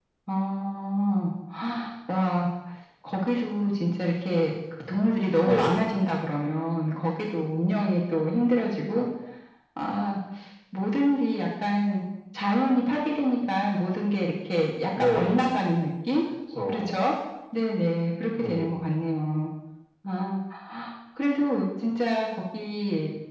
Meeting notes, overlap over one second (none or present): none